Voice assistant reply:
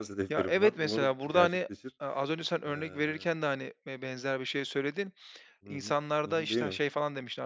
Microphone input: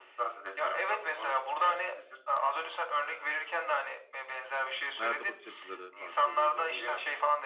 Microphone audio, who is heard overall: both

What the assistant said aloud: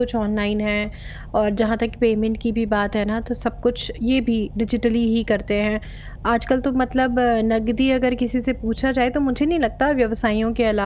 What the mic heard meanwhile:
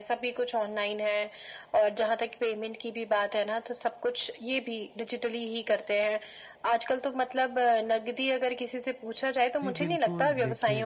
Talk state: both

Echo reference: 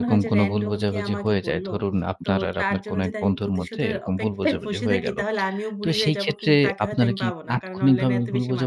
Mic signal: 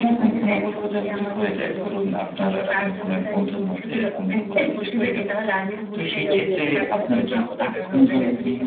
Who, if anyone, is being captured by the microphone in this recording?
both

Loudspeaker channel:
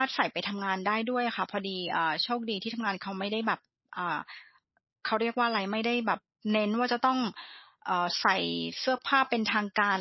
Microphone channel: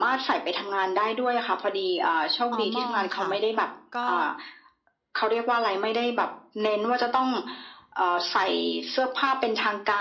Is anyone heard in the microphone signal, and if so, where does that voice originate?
both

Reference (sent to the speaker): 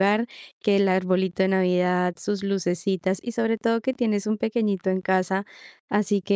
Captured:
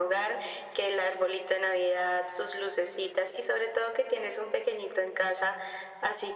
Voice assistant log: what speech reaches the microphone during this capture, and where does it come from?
echo only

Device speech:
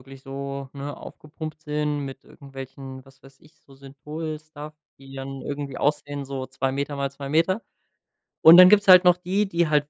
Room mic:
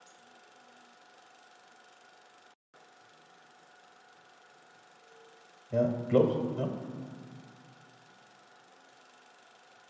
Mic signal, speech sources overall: user only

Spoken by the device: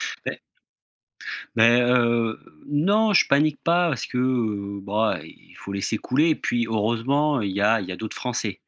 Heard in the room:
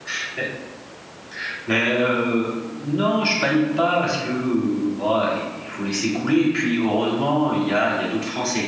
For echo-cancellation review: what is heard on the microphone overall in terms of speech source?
echo only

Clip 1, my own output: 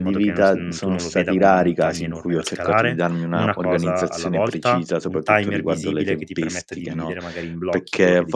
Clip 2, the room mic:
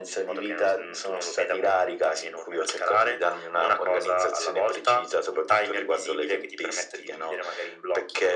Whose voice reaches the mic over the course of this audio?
echo only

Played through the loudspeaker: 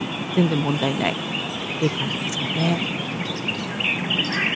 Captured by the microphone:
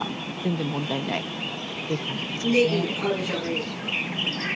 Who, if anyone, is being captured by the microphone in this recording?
both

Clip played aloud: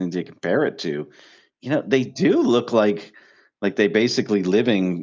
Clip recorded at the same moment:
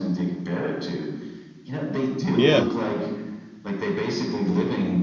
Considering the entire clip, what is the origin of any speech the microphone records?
both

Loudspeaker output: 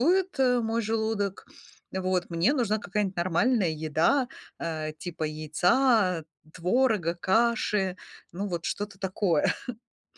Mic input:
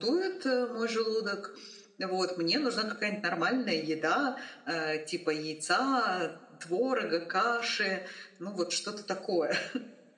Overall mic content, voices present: echo only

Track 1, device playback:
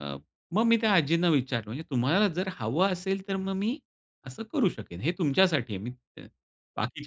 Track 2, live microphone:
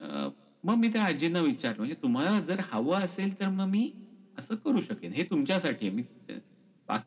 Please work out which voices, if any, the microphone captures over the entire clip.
echo only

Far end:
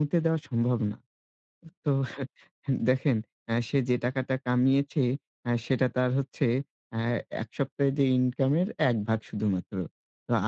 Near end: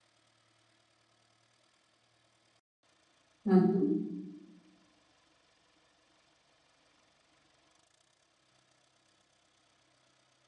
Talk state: user only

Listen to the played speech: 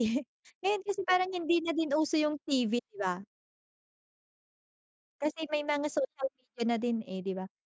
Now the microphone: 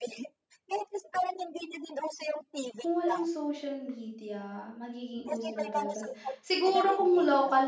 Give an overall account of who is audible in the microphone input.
both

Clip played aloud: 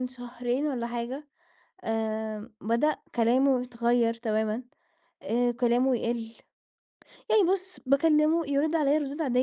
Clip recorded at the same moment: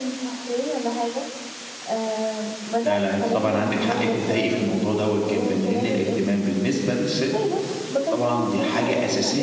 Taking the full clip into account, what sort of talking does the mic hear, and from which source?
both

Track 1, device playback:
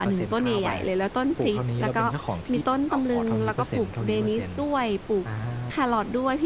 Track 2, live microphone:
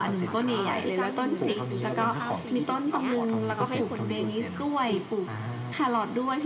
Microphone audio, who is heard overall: both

